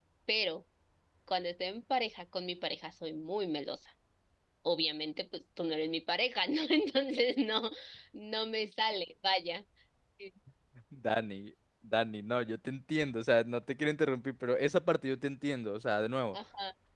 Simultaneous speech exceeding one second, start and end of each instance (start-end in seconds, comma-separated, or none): none